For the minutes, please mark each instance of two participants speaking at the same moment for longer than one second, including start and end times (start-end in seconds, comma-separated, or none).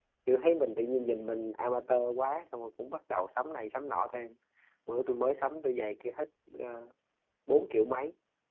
none